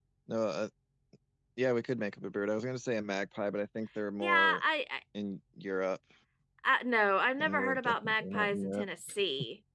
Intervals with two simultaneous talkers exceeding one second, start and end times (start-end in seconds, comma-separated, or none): 7.4-8.8